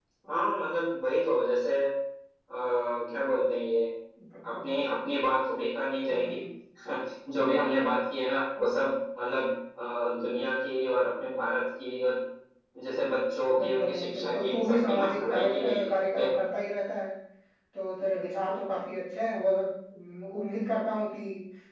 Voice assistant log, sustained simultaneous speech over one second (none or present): present